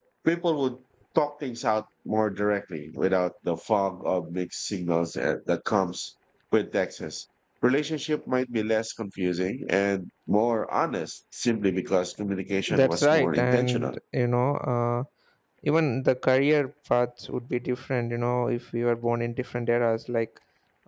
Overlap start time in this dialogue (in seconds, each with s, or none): 12.7 s